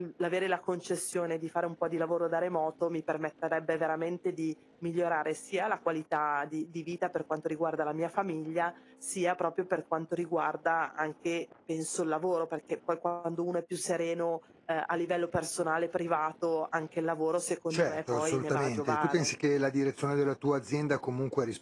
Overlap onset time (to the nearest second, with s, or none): 18 s